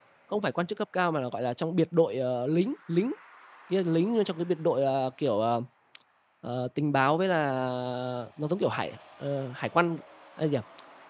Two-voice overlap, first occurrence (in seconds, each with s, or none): none